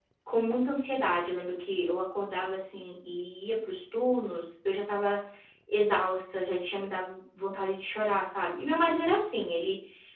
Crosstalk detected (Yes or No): No